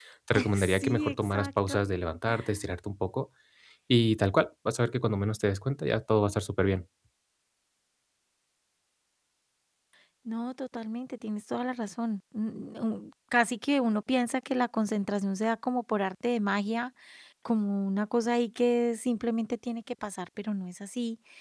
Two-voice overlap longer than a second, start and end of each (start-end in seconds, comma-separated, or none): 0.5-1.8